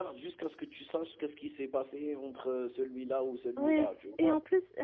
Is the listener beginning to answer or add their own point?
Yes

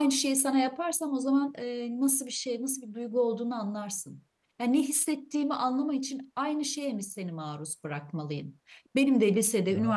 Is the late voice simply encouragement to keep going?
Yes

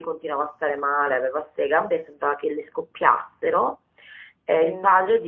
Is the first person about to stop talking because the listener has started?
No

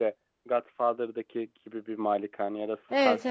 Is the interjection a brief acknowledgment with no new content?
No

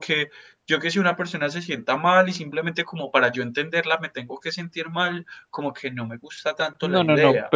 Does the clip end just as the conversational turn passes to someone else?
Yes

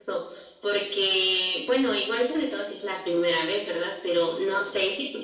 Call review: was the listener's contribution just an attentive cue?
Yes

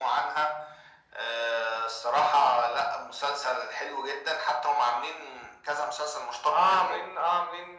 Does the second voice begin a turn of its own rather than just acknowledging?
Yes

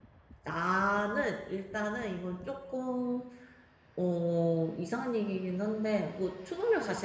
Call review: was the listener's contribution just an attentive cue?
Yes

